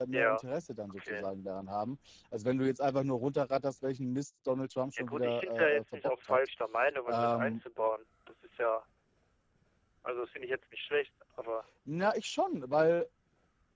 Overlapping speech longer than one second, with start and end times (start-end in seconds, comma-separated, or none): 5.0-6.4